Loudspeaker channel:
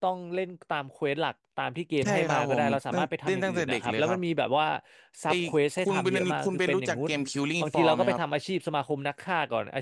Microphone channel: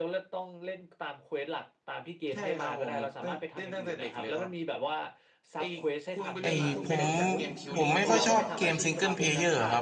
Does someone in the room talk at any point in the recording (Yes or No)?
Yes